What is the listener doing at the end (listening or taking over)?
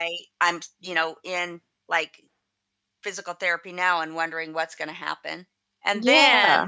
listening